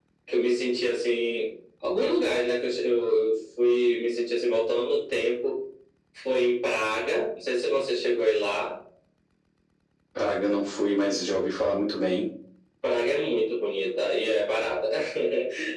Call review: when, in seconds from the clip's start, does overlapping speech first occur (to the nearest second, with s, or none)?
none